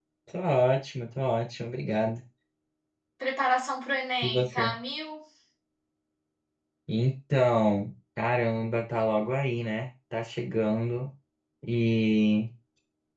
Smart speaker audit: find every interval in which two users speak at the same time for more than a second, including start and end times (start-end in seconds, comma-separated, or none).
none